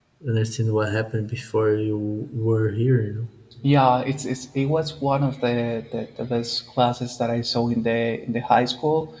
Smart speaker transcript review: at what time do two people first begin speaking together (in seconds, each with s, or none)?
none